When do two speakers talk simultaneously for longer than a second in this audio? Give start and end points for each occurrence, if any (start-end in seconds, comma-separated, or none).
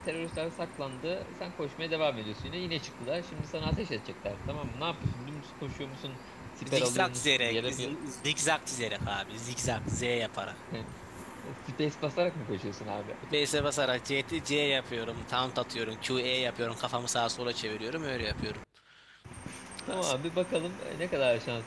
6.7-7.9